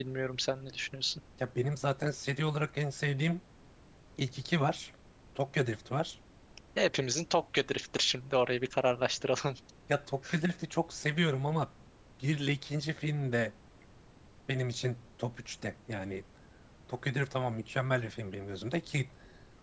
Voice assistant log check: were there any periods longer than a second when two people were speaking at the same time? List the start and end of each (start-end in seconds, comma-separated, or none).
none